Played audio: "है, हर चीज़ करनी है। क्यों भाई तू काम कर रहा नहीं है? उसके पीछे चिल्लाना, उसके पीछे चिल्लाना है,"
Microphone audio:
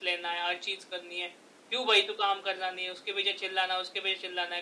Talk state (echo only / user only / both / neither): echo only